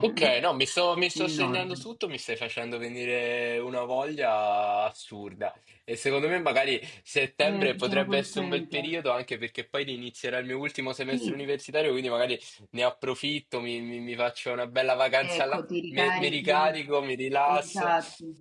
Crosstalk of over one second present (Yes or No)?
Yes